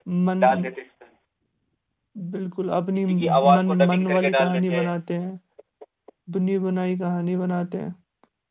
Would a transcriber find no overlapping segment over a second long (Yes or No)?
No